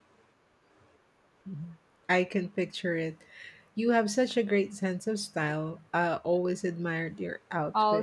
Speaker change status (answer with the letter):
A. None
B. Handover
B